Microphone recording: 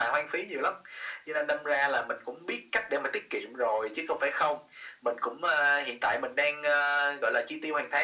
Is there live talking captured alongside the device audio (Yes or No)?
No